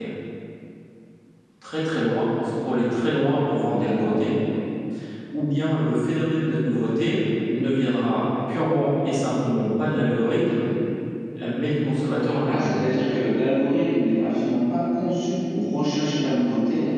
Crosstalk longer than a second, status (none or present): none